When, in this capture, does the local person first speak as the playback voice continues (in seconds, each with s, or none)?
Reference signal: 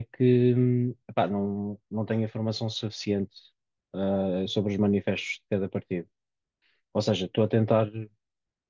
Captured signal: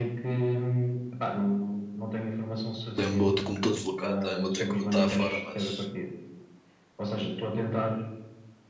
2.9 s